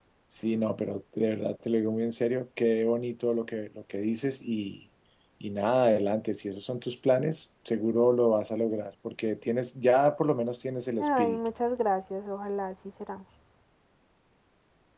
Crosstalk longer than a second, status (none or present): none